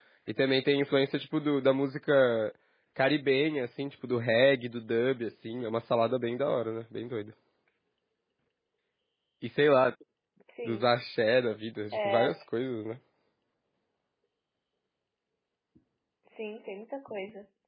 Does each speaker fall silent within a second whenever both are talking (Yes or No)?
Yes